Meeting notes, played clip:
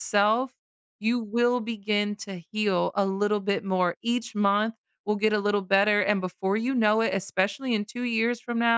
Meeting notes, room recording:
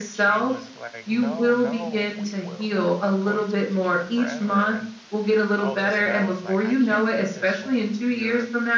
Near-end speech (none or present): present